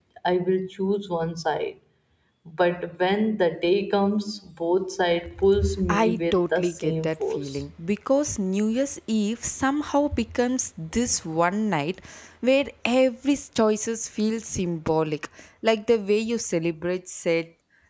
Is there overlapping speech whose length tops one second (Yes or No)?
Yes